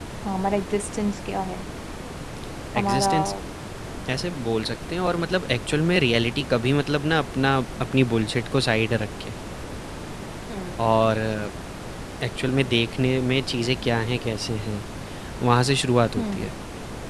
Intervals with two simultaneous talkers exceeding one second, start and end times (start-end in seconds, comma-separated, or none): none